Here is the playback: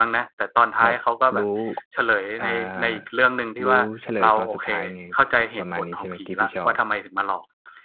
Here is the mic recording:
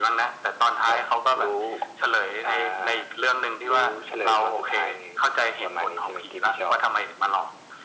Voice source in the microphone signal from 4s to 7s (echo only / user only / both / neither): echo only